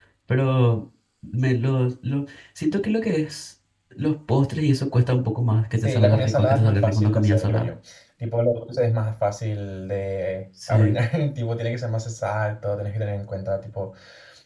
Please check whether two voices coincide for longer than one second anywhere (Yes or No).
Yes